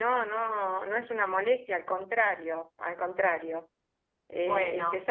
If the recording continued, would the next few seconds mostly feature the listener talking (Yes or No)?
No